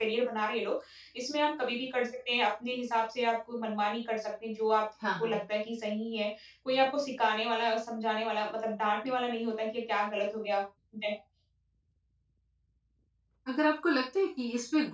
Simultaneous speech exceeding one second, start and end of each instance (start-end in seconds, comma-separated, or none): none